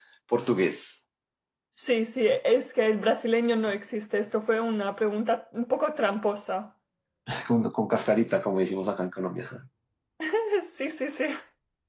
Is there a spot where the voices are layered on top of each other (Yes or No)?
No